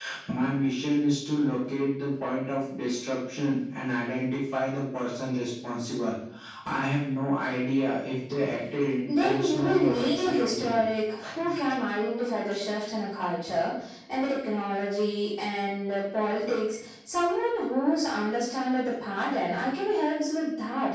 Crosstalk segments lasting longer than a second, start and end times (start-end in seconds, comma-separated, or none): 9.1-10.9